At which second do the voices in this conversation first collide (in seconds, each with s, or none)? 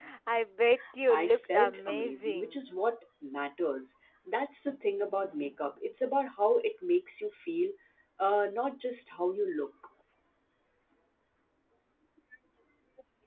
1.1 s